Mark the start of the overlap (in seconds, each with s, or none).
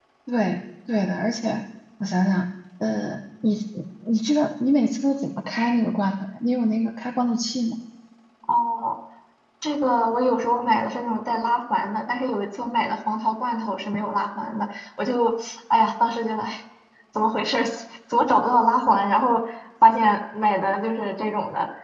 none